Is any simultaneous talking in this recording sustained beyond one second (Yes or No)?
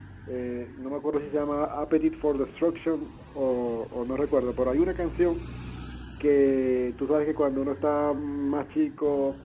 No